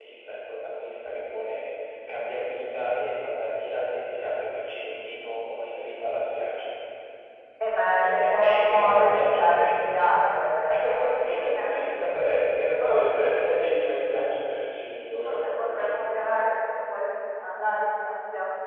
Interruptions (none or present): present